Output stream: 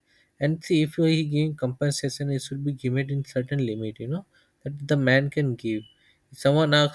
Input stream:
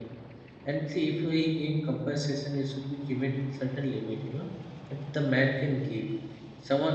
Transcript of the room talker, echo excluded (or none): none